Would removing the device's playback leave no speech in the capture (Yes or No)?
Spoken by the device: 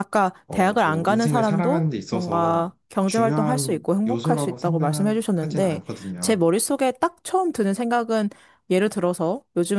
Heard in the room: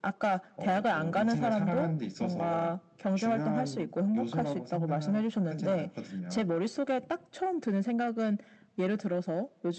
Yes